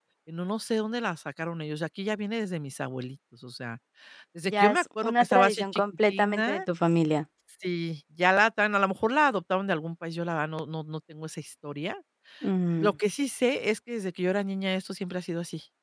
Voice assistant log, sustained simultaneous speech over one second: present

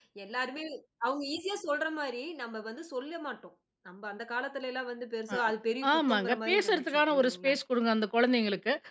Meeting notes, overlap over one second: present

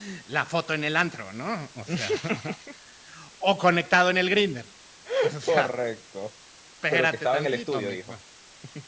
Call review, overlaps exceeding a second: present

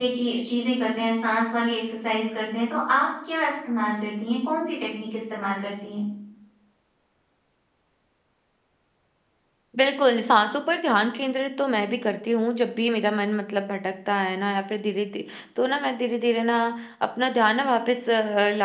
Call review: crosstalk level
none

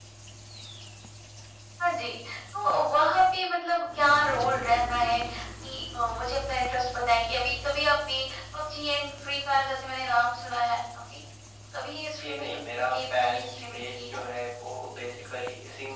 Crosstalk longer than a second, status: present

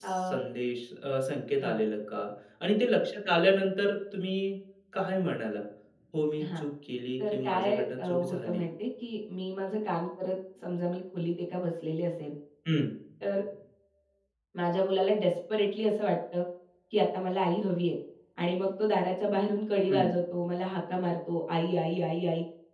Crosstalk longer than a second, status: present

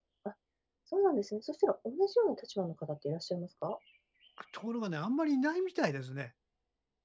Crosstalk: none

